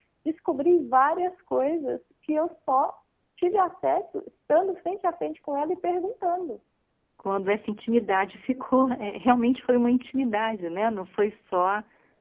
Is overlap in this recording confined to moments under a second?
Yes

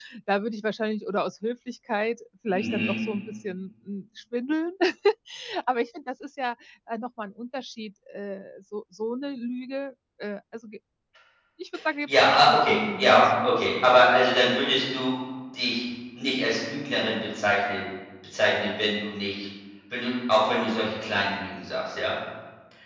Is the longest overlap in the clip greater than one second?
Yes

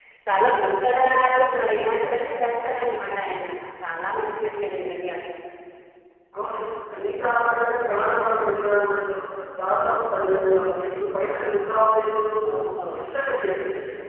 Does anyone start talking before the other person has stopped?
No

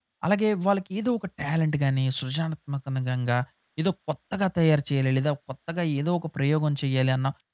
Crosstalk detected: No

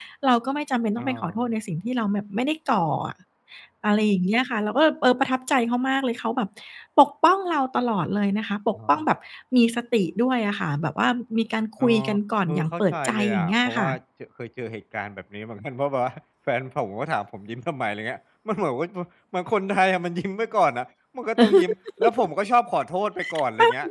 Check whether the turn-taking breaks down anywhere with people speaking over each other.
Yes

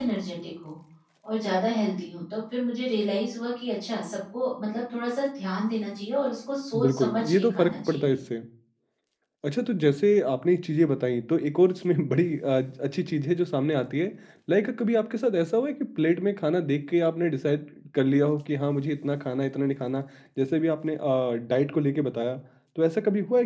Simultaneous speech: Yes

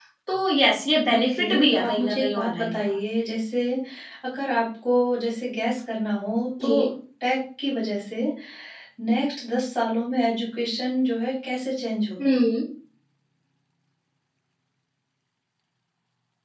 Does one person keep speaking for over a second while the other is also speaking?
Yes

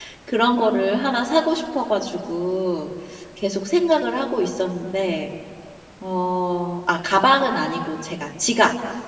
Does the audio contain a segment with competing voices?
No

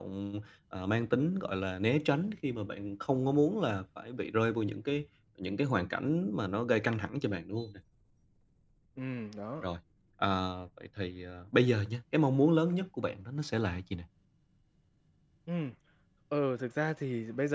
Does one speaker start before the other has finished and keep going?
No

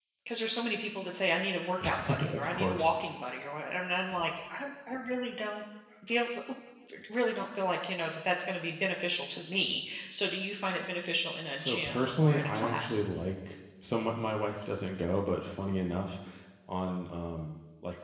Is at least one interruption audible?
Yes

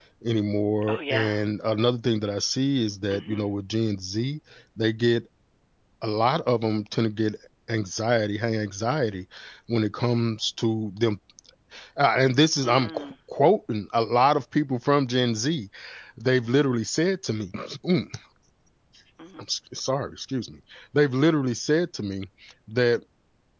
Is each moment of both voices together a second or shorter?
Yes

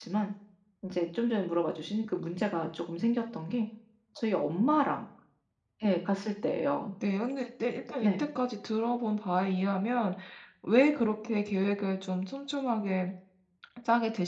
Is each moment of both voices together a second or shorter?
Yes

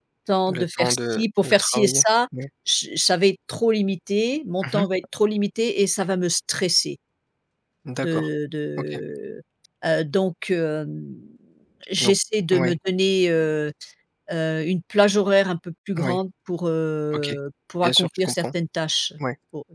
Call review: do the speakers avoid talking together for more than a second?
No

